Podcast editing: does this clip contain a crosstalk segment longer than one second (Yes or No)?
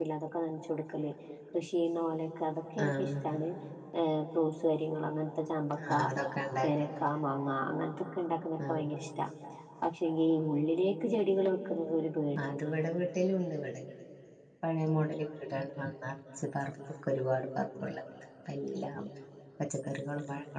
No